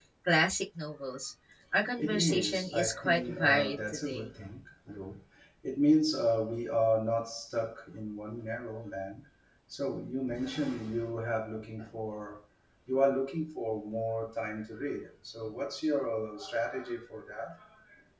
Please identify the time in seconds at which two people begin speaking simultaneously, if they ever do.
2.0 s

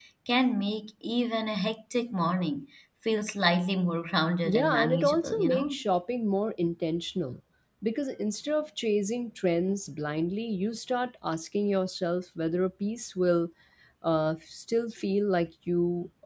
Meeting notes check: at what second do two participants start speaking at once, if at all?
4.4 s

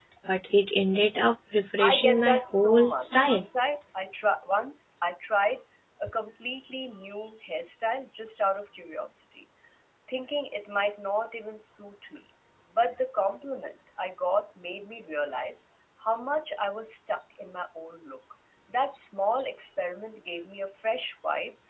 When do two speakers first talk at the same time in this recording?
1.8 s

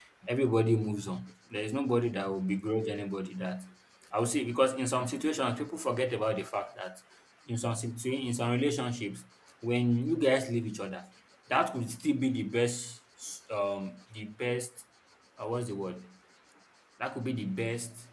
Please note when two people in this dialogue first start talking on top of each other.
none

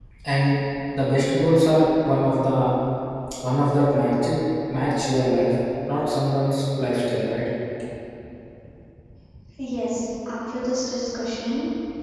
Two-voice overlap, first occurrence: none

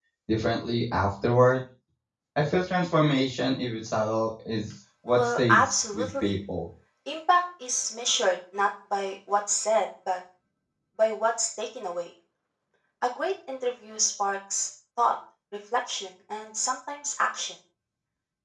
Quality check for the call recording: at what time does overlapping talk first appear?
5.1 s

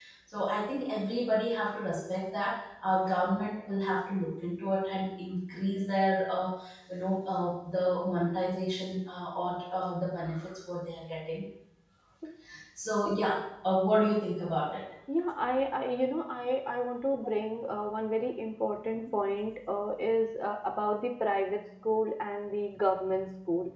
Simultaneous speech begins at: none

